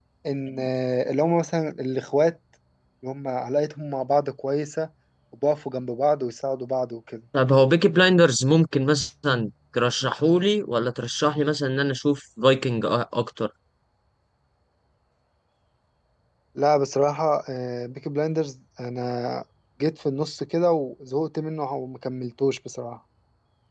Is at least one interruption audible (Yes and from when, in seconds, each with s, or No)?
No